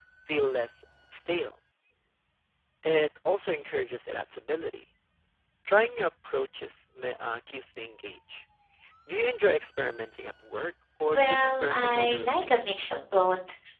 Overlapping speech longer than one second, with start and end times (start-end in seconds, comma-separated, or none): 11.1-12.9